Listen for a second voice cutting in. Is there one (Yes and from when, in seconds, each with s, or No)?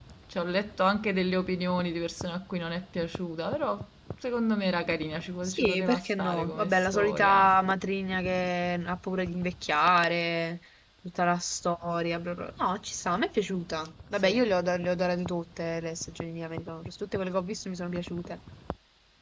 Yes, from 5.4 s